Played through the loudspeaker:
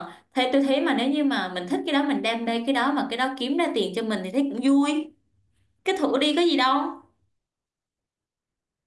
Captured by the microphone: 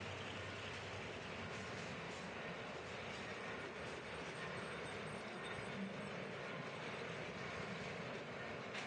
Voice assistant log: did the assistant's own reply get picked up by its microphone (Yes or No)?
No